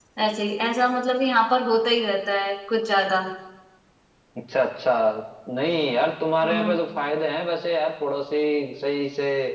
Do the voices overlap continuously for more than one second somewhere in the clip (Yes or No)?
No